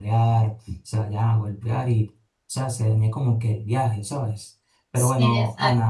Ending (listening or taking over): listening